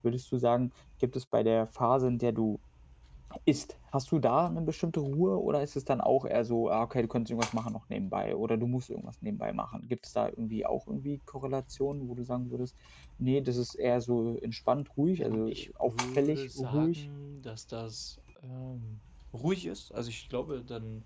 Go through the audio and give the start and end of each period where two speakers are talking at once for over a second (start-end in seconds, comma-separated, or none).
15.2-17.0